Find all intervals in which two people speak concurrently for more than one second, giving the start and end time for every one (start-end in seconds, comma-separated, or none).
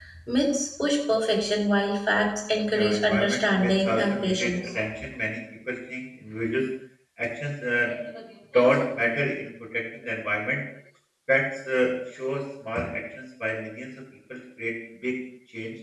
2.7-4.6